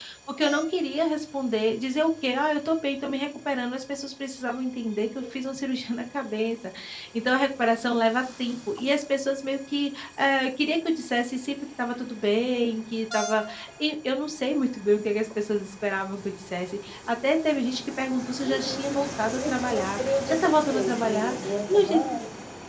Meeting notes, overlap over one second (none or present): present